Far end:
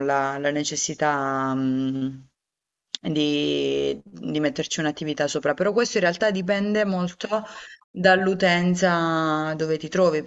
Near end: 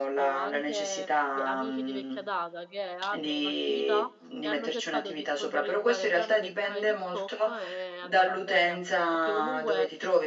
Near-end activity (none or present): present